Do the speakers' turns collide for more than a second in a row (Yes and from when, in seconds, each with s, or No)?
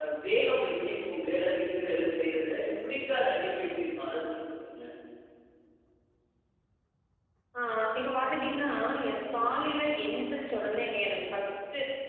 No